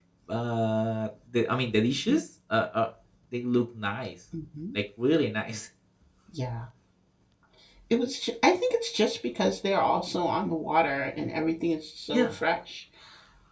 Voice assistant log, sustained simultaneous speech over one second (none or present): none